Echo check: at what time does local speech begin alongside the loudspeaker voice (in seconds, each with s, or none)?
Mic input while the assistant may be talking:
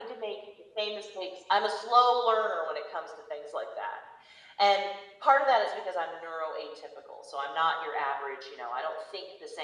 none